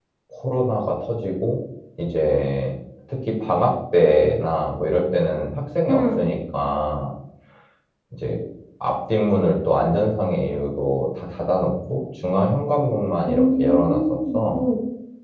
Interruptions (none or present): present